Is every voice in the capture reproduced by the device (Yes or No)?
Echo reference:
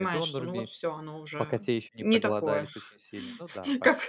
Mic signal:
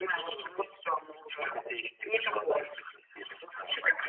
Yes